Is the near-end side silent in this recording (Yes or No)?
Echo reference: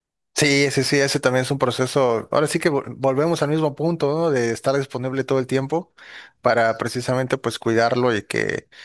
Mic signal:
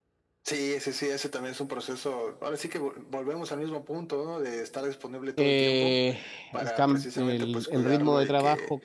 No